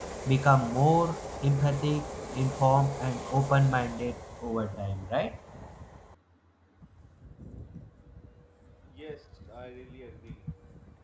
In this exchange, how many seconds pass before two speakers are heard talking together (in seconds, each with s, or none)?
none